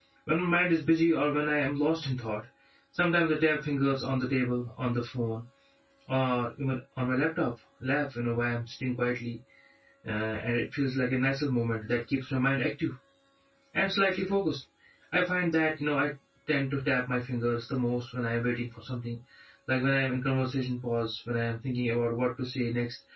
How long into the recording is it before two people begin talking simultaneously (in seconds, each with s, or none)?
none